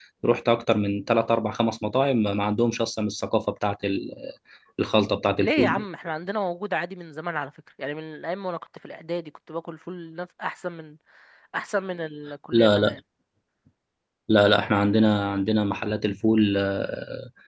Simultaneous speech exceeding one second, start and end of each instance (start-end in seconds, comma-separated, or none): none